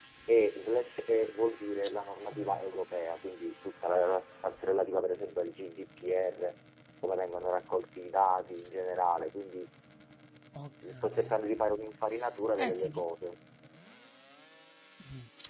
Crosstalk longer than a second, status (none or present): none